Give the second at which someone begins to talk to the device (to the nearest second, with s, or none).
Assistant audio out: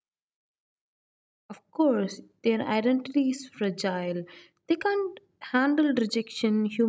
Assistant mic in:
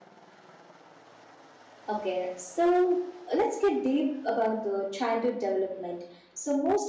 2 s